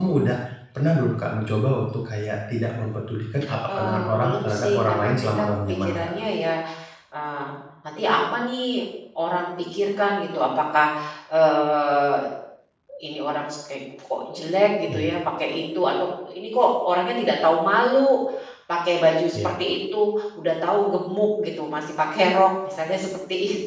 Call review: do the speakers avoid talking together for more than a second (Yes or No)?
No